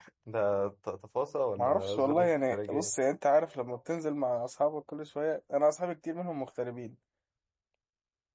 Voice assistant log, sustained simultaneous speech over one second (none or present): present